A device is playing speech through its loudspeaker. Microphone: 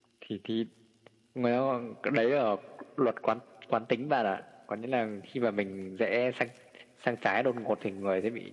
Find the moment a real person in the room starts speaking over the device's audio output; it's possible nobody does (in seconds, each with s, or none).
none